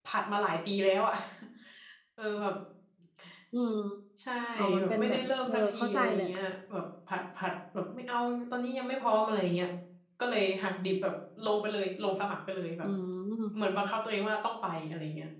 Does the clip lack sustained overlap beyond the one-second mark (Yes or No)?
No